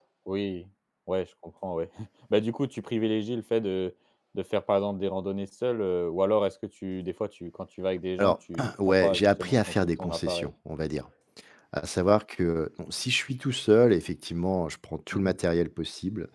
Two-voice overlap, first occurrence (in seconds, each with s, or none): 8.2 s